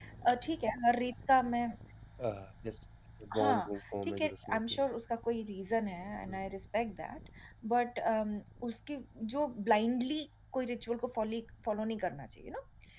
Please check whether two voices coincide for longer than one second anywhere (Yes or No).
Yes